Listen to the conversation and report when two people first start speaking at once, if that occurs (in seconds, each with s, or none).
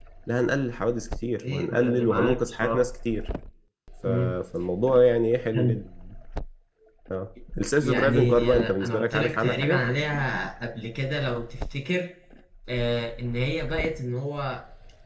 1.4 s